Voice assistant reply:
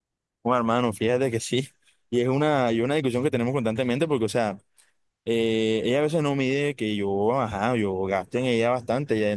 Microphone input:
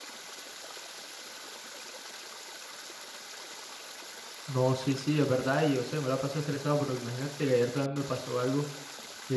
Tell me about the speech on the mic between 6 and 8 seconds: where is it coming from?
user only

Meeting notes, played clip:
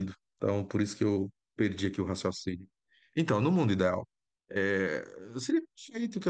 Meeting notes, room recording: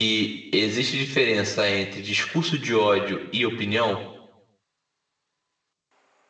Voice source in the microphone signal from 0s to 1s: user only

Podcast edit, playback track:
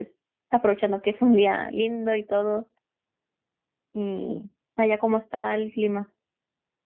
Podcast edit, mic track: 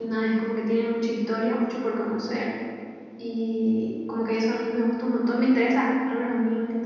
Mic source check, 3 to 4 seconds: user only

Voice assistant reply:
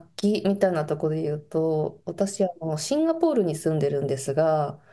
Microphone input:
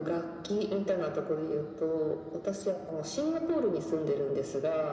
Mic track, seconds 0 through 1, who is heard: echo only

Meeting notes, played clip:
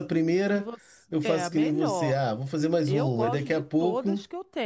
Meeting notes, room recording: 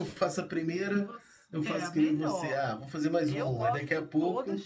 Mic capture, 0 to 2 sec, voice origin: echo only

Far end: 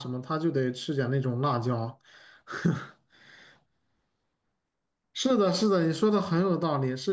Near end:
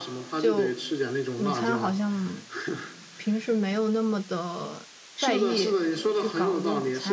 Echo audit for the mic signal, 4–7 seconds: both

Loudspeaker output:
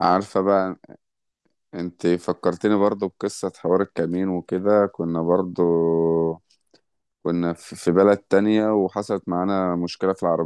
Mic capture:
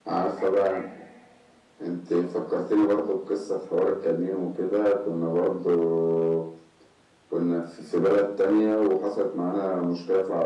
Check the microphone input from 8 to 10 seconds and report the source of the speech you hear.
echo only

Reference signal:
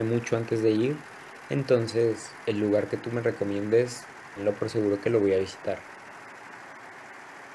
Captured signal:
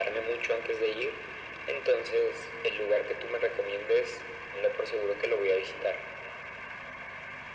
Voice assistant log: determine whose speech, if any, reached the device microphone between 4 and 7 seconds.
echo only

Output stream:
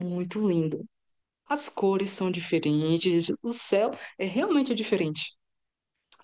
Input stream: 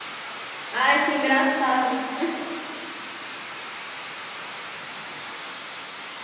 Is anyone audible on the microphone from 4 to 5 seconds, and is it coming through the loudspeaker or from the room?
neither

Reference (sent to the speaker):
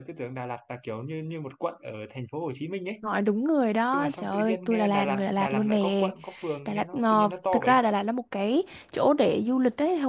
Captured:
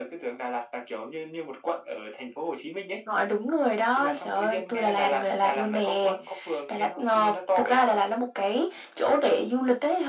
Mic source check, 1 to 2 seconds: echo only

